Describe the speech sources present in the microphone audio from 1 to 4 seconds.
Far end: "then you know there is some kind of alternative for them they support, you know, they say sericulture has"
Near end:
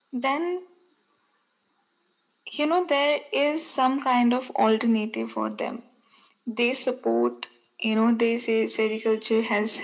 echo only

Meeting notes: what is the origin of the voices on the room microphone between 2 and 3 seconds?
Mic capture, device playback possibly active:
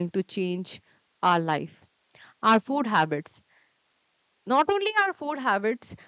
user only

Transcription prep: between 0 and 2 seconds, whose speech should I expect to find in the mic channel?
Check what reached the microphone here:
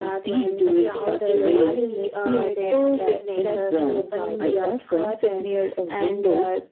both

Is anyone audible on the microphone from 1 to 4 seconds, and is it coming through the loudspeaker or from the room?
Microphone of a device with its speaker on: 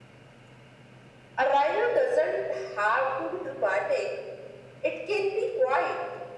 echo only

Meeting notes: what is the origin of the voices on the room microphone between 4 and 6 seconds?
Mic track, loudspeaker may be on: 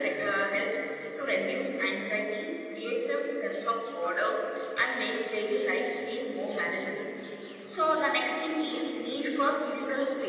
echo only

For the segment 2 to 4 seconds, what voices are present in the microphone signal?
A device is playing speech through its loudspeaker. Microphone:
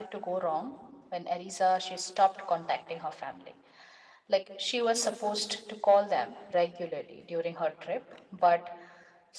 echo only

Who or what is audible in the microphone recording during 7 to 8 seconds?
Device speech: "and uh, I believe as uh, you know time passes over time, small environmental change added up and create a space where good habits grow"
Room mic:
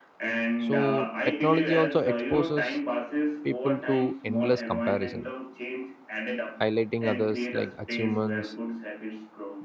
both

